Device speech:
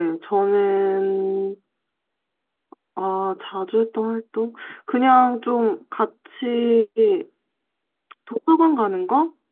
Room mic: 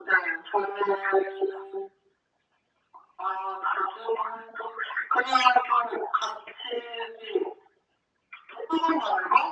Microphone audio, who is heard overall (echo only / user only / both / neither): echo only